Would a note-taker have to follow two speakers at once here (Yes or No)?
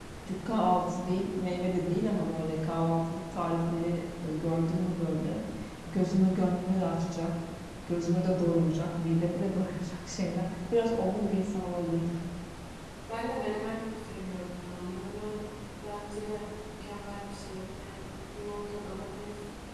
No